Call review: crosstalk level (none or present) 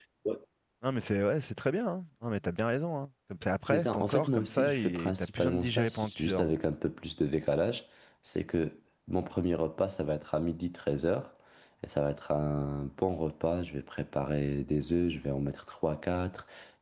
present